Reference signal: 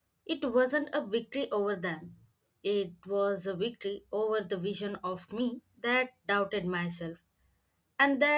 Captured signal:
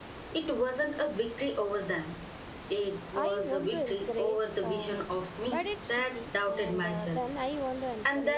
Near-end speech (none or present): present